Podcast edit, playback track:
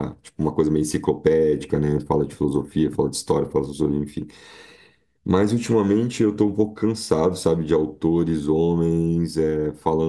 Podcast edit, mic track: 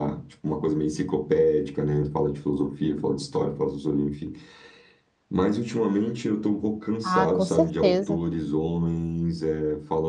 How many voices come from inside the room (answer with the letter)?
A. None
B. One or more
B